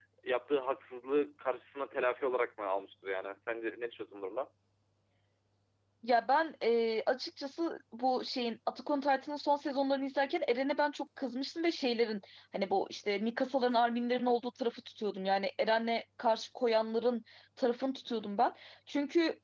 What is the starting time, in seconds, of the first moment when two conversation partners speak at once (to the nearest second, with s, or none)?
none